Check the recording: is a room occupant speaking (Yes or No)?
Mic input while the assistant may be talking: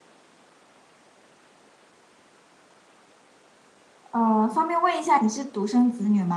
Yes